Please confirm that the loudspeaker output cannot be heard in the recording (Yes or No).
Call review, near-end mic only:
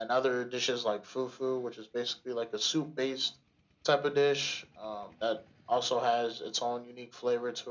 No